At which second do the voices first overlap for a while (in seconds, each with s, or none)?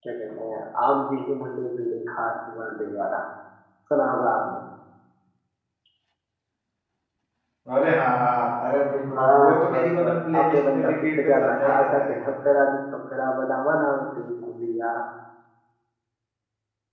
9.2 s